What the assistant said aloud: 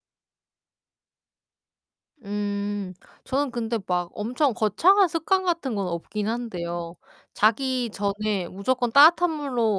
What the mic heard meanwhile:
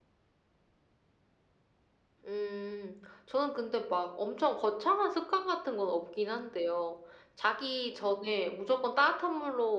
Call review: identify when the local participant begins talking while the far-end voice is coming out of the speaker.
none

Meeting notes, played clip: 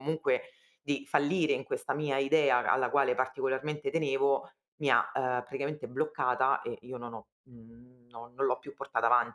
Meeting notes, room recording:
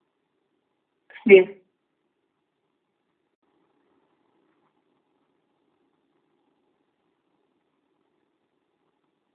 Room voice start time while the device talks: 1.1 s

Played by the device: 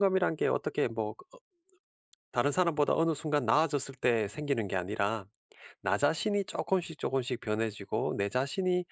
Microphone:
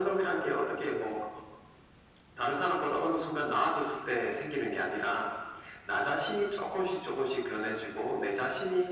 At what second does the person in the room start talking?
none

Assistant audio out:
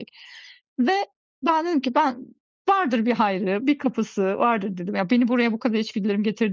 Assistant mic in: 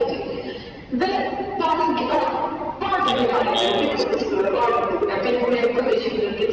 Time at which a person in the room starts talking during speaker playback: 3.0 s

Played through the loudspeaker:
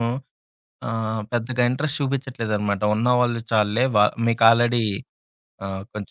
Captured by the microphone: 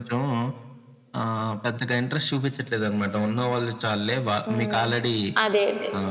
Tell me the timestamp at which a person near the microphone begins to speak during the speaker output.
4.5 s

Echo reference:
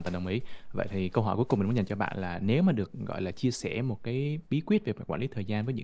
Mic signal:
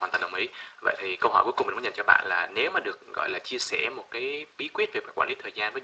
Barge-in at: none

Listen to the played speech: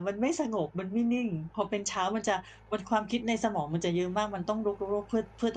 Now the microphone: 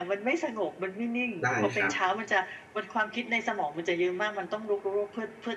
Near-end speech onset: 1.4 s

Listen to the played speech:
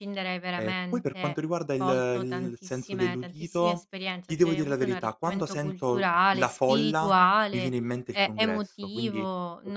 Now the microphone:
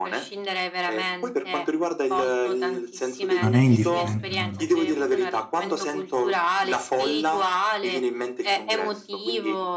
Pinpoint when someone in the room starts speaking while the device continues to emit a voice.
3.4 s

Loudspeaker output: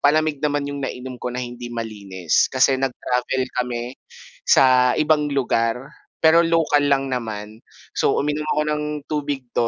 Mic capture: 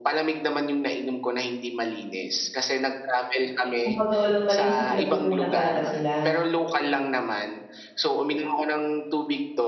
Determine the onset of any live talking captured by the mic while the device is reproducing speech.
3.7 s

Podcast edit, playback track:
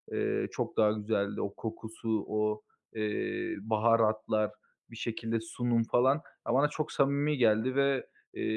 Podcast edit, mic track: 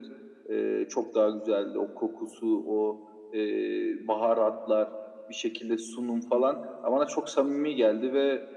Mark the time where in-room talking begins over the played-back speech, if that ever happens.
none

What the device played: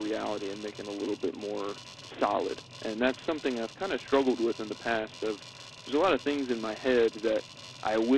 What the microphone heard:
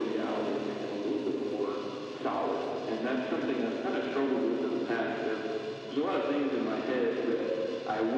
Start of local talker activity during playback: none

